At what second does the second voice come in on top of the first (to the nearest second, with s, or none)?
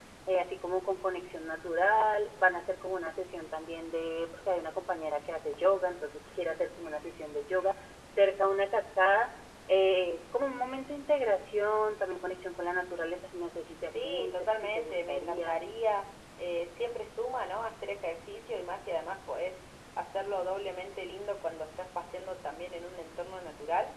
14 s